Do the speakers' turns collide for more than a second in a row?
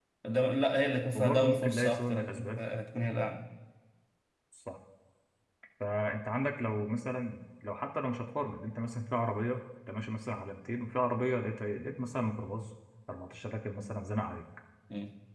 Yes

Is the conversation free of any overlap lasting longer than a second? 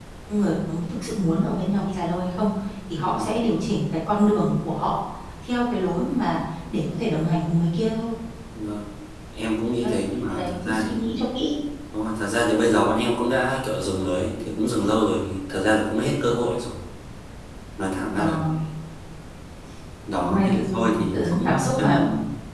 No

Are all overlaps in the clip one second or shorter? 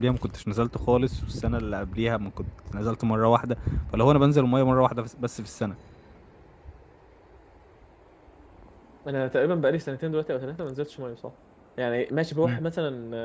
Yes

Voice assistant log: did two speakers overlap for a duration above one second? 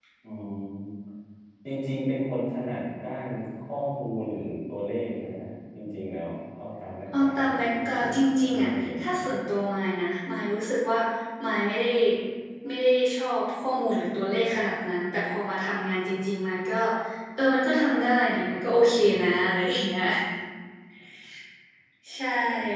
Yes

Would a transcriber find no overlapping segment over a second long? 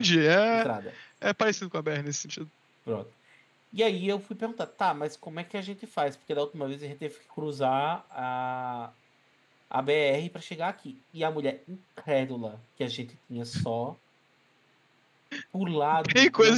Yes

